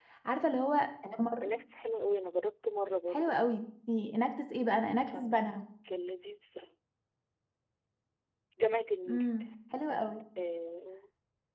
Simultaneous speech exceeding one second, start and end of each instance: none

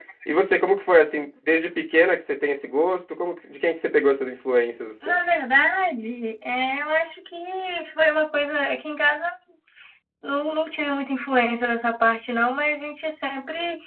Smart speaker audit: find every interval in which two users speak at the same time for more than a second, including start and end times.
none

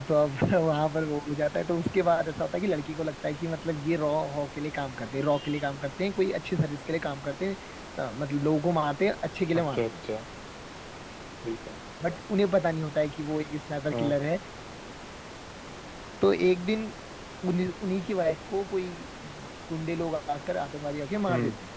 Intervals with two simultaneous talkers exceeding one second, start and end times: none

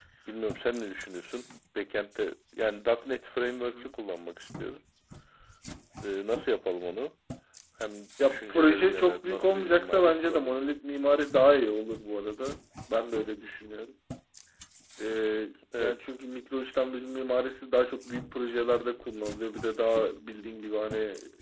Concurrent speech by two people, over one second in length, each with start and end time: 8.3-10.6

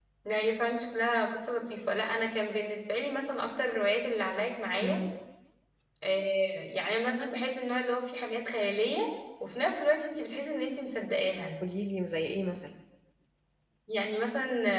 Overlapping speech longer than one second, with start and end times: none

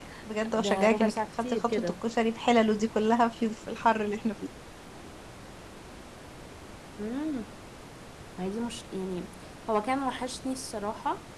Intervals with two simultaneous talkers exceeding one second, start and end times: 0.6-1.9

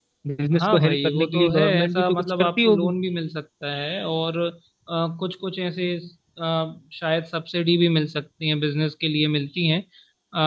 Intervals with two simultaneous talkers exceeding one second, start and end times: 0.6-2.9

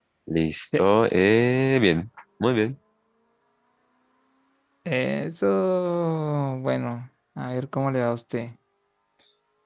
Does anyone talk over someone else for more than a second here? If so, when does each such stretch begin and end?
none

